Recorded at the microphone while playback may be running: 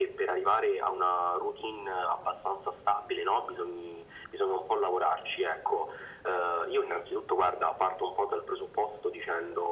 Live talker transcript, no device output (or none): none